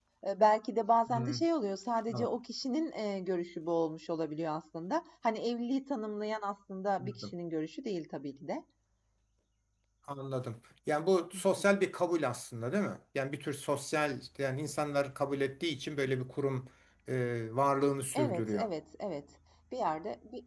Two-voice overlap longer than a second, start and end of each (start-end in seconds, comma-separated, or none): none